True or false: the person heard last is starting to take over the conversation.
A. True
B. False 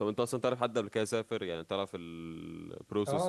A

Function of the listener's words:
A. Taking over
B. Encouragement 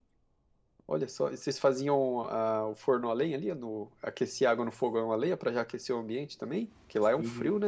A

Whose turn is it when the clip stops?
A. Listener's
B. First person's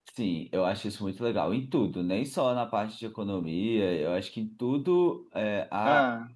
B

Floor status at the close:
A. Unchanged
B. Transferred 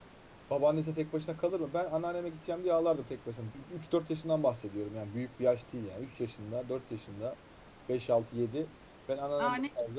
A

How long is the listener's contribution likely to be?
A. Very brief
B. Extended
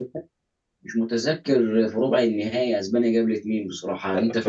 B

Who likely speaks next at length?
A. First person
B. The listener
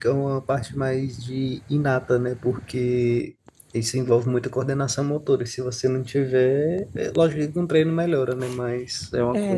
B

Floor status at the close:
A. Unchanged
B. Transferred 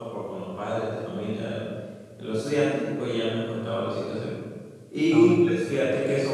A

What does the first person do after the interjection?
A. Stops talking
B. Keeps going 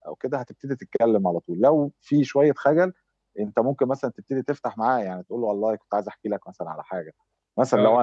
B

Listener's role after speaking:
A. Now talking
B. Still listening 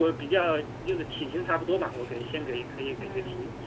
A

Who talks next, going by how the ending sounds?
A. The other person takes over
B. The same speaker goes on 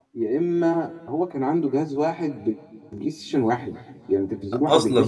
B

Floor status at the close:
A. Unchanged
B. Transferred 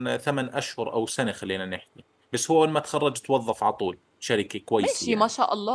B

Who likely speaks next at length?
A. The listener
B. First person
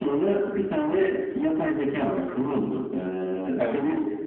B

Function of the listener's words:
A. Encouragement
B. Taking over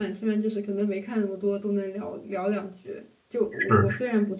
A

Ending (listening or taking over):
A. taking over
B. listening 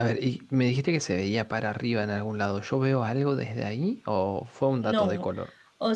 A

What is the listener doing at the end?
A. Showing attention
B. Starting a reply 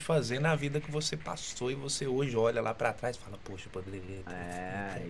B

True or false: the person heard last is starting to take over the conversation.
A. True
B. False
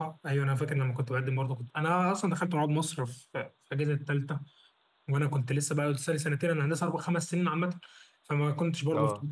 B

